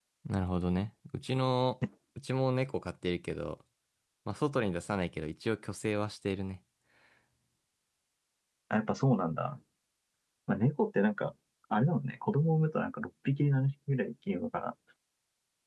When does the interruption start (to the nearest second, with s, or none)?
none